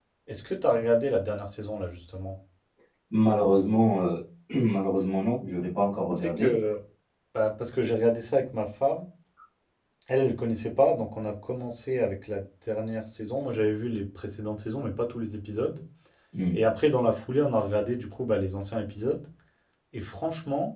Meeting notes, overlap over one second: none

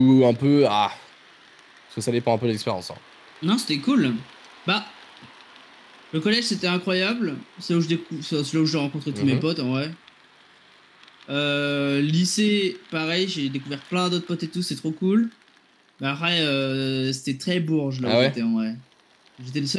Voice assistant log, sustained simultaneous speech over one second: none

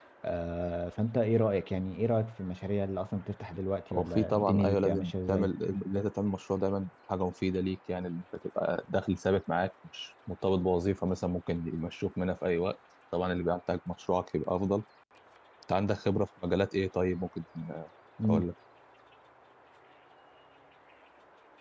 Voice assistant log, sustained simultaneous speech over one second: present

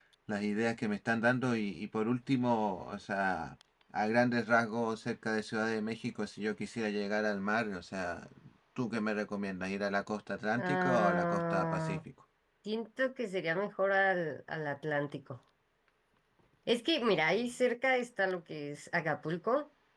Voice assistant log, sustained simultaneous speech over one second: present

